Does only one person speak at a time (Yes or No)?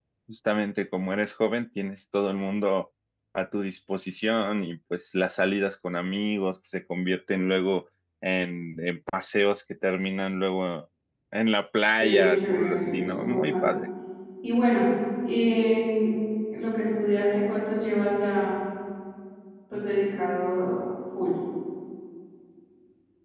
No